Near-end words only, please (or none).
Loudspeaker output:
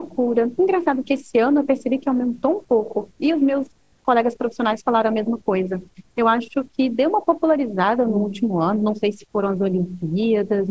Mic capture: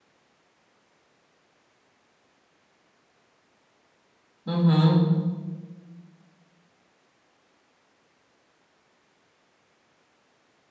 Uhum,